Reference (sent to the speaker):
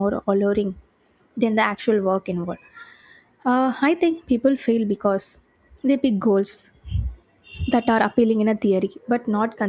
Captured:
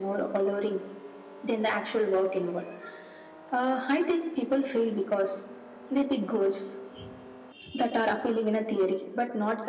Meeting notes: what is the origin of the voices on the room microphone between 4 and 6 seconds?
echo only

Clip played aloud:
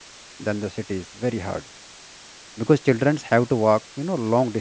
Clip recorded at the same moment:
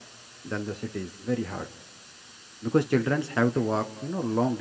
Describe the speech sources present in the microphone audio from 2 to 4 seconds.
echo only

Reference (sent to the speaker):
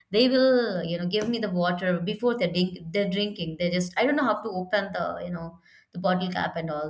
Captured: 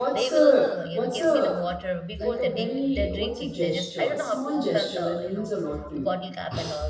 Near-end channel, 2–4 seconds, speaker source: both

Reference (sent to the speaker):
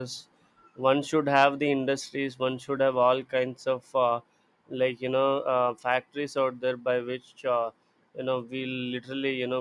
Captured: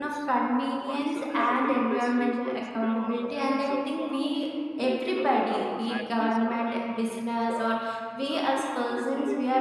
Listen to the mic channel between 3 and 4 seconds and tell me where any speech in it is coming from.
both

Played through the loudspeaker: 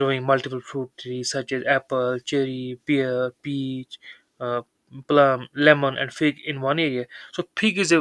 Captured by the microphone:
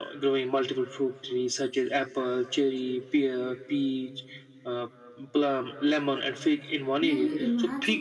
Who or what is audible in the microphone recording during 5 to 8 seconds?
both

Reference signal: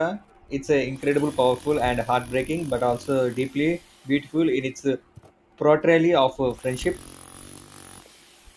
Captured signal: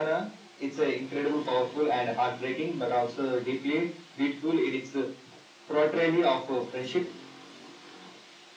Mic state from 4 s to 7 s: echo only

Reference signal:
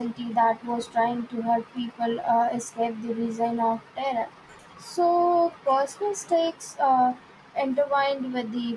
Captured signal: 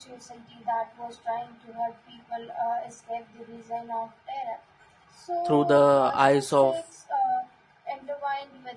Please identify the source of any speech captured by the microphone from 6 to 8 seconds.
both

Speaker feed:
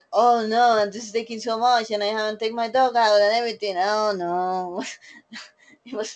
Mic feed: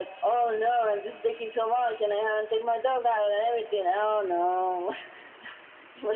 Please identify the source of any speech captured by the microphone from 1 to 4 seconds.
echo only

